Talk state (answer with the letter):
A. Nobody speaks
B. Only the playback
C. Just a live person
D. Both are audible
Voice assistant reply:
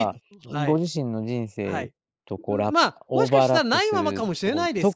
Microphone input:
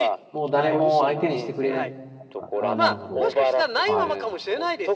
D